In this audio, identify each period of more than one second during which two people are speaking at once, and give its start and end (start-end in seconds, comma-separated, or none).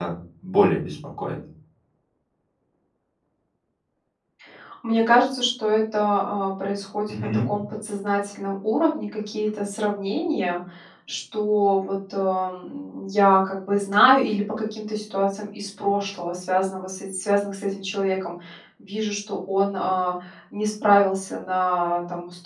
none